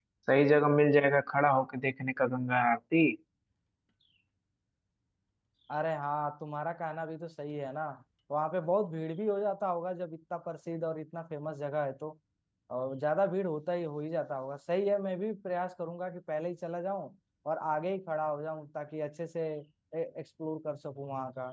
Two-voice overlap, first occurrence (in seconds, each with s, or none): none